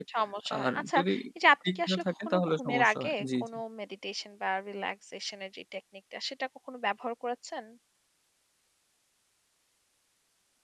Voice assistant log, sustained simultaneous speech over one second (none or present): present